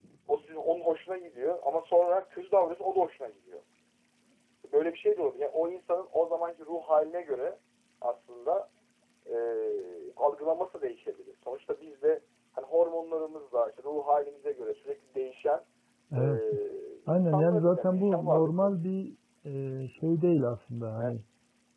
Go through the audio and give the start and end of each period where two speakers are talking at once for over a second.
17.1-18.7

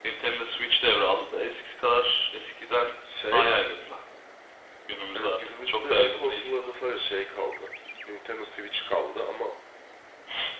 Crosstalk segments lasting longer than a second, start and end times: 5.2-6.5

